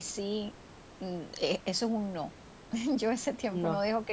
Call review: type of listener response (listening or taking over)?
listening